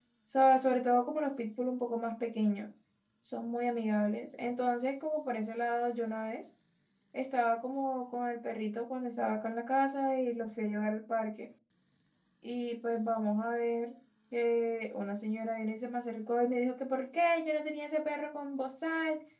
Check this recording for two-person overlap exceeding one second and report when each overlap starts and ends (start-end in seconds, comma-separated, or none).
none